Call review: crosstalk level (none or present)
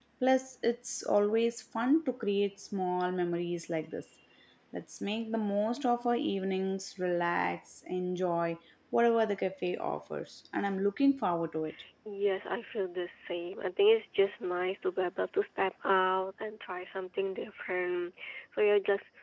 none